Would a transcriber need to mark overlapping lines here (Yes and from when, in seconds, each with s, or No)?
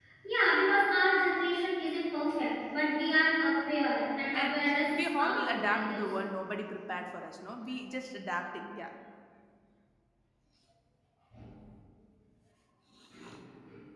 Yes, from 4.3 s